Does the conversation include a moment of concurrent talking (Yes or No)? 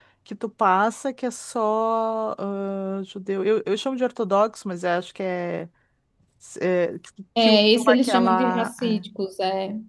Yes